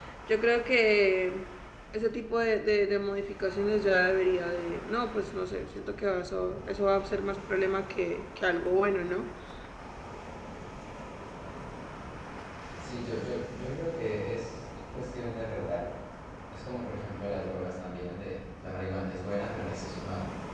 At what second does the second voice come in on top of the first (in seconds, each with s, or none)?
none